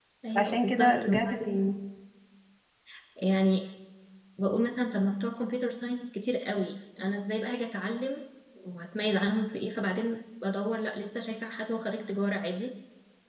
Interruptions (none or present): present